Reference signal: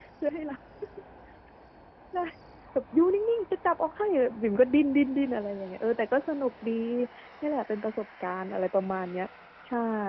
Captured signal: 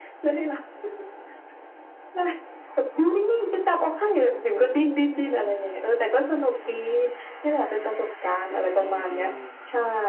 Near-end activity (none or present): present